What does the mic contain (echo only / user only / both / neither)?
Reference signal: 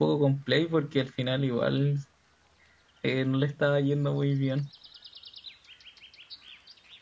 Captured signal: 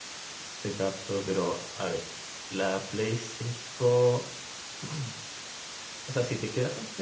user only